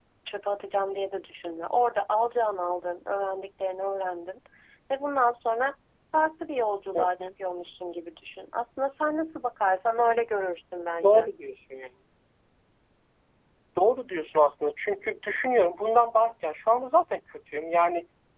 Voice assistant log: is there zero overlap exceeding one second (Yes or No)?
Yes